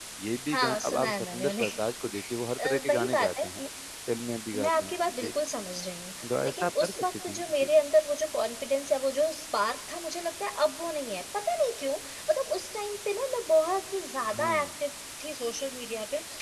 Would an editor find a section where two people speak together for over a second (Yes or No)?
Yes